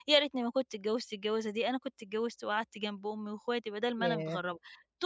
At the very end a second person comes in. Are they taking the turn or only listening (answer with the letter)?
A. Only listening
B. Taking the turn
A